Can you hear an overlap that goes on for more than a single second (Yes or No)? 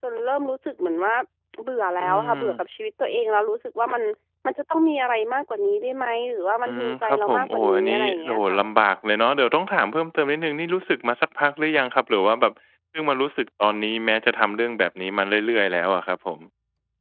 Yes